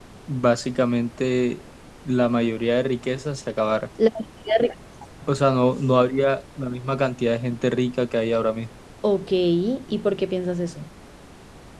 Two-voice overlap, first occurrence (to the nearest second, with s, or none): none